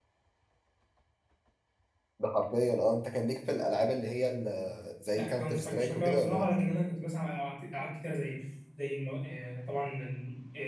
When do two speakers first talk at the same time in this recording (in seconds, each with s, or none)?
5.2 s